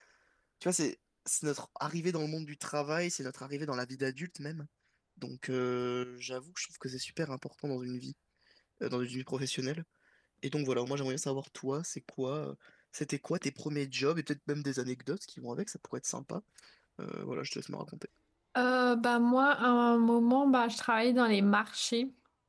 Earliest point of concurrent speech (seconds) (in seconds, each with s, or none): none